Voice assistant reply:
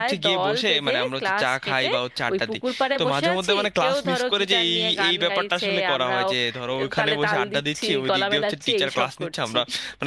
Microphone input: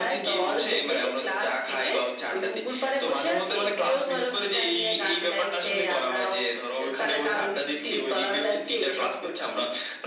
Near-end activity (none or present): none